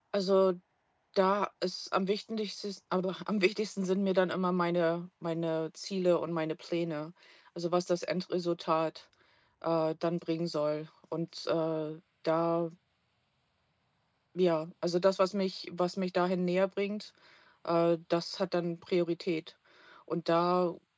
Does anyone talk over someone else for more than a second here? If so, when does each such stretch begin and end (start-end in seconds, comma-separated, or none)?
none